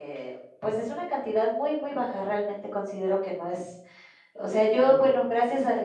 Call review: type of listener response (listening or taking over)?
listening